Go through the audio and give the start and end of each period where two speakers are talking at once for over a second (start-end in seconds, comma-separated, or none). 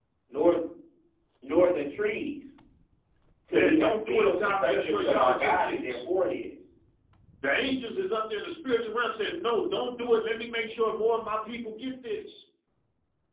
3.5-6.0